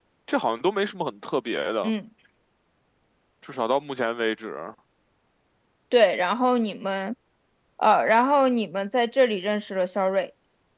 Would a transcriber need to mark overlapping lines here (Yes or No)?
No